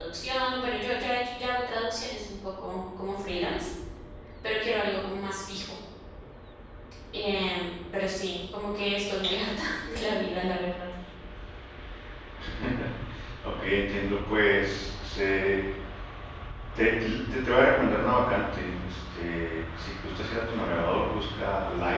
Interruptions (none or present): none